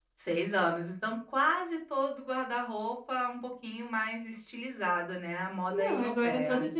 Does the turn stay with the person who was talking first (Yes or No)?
No